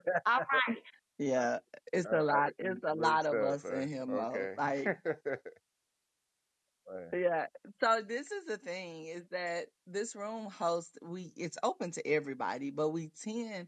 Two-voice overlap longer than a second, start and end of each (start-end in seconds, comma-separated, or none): 2.1-4.9